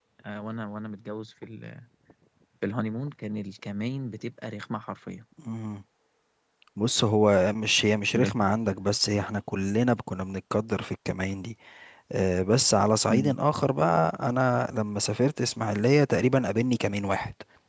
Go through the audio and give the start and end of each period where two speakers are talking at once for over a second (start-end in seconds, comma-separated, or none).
none